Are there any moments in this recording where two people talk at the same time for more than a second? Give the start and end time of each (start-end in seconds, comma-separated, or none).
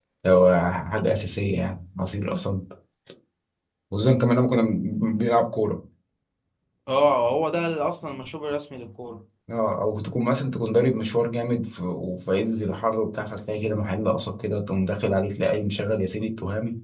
none